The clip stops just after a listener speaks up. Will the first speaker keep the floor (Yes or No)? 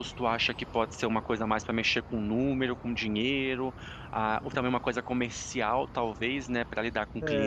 No